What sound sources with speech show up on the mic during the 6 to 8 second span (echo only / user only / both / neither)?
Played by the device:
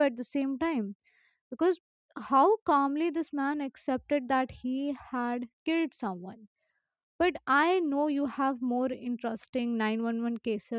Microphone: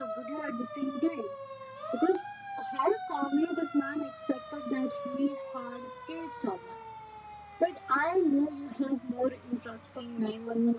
echo only